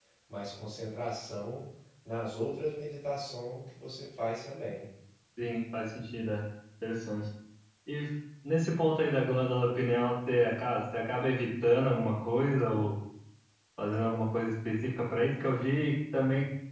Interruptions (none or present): none